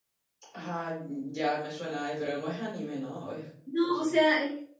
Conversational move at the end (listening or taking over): taking over